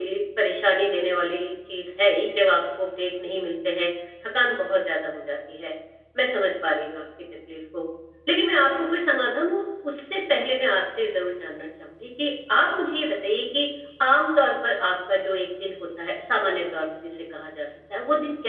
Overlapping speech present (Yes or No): No